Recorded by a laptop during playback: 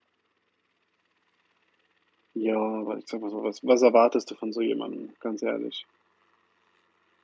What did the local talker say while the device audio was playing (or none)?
Ja, aber ich sage mal so, was was erwartest du von so jemandem? Ganz ehrlich.